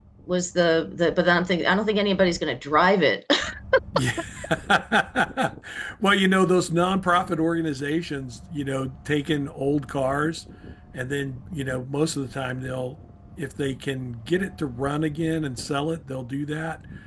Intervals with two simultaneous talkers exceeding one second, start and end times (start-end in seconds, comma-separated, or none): none